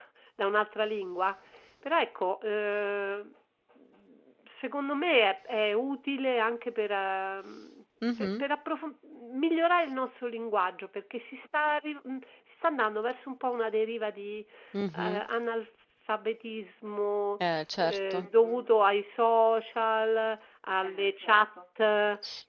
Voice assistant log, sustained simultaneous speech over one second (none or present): none